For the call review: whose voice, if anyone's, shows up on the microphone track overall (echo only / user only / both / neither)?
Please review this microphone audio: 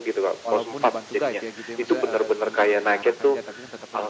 both